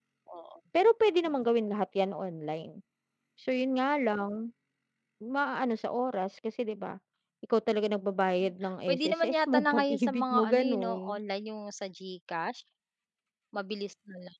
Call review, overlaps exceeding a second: present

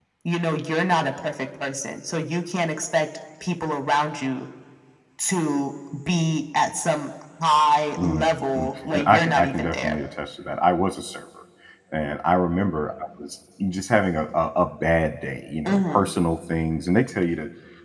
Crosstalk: present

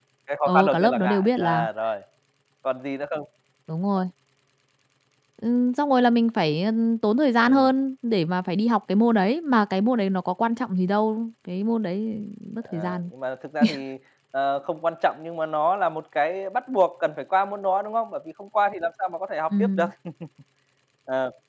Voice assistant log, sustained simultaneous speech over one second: present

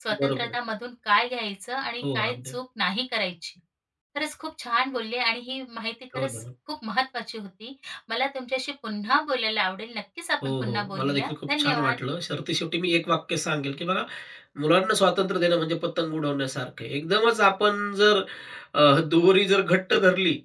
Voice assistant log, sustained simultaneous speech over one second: present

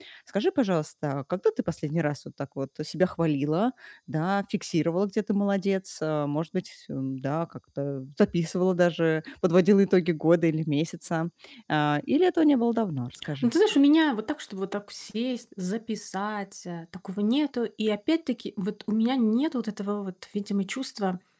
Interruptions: none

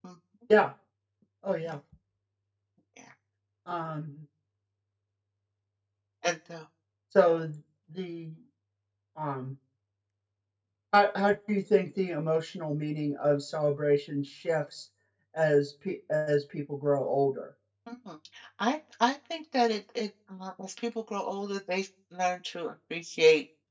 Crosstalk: none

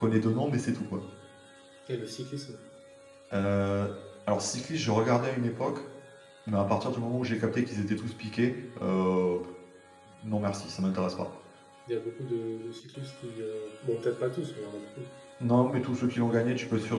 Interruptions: none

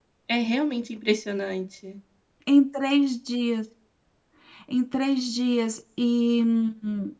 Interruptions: none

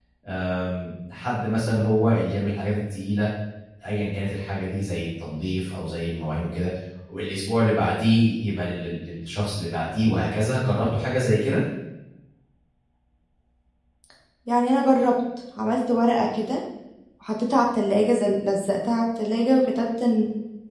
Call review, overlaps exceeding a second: none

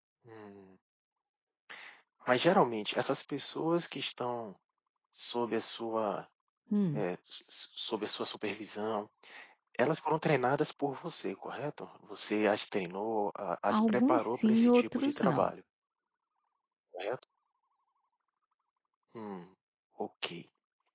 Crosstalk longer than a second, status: present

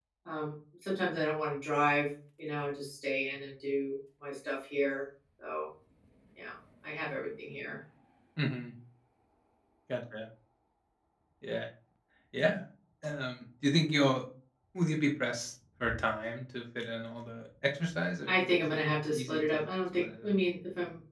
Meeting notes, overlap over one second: present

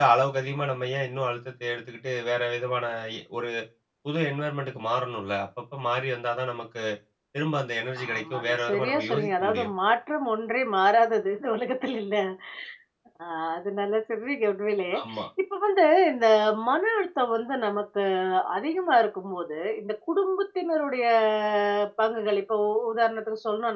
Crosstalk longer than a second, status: present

